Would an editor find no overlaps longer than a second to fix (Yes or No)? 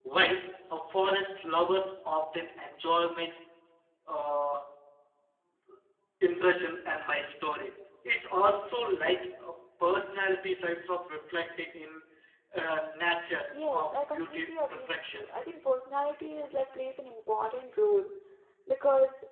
No